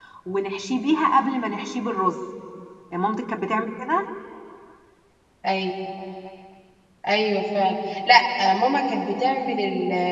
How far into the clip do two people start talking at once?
none

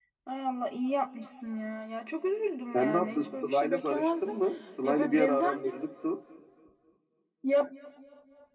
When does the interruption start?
3 s

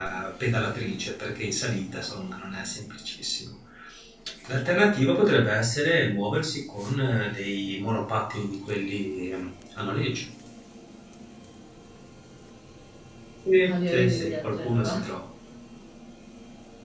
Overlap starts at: 14 s

